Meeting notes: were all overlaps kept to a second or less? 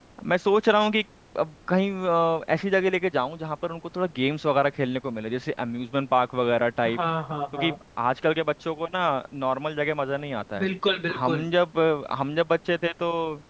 Yes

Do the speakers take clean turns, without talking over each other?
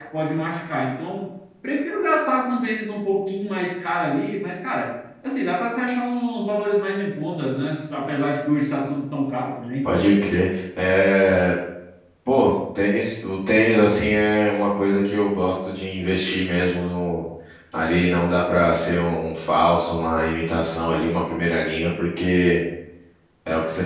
Yes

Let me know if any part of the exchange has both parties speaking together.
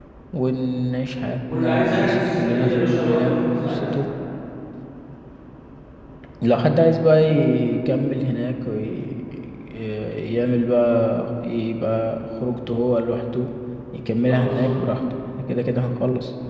Yes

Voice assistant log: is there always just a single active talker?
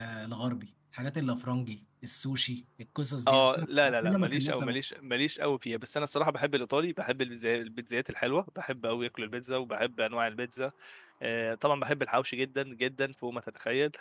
No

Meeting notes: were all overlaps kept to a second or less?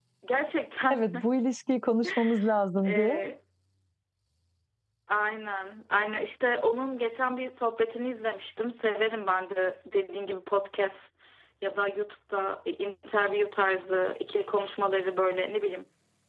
Yes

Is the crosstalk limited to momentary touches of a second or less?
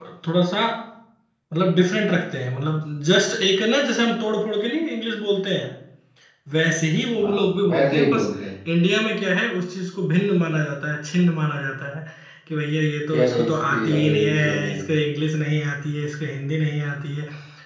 No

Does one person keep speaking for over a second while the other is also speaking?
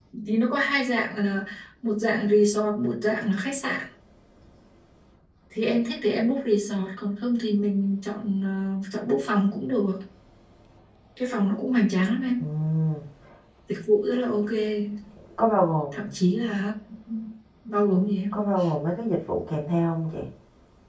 No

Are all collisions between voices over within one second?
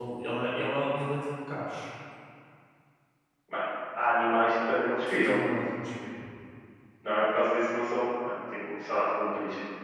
Yes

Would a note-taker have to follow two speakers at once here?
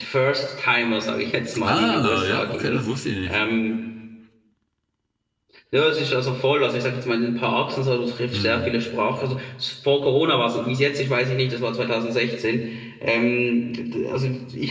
Yes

